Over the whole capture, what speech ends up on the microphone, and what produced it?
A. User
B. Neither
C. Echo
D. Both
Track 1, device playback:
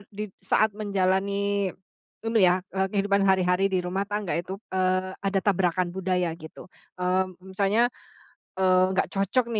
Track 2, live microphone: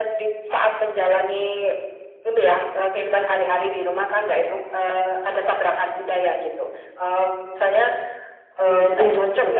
D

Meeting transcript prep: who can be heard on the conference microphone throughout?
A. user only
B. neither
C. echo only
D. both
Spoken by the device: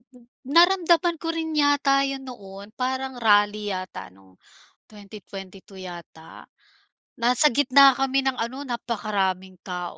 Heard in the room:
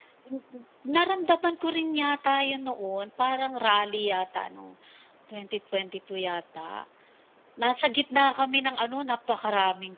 C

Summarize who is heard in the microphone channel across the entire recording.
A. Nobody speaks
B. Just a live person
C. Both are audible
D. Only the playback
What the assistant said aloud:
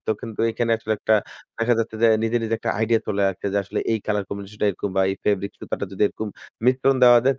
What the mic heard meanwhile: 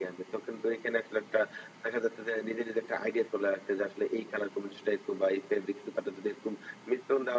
D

